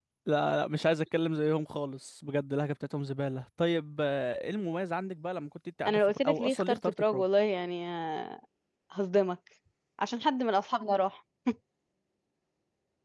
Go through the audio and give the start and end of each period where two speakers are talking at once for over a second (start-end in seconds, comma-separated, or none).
5.8-7.2